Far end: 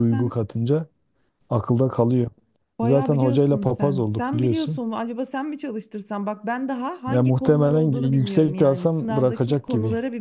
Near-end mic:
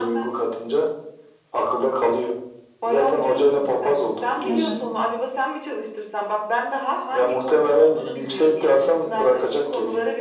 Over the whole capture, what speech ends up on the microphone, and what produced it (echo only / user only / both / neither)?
both